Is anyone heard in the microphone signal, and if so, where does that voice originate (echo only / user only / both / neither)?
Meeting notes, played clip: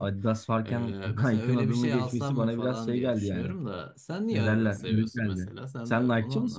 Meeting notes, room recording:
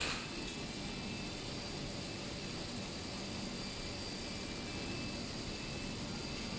neither